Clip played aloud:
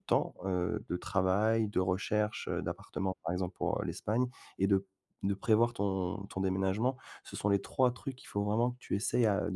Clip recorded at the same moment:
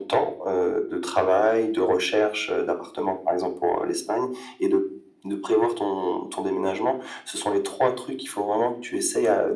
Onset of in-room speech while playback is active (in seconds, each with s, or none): none